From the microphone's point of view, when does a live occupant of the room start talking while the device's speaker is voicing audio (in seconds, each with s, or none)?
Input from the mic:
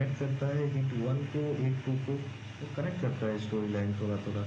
none